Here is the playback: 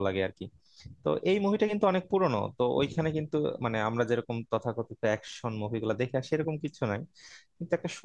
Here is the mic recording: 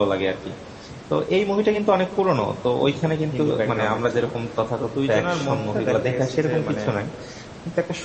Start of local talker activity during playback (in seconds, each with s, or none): 3.3 s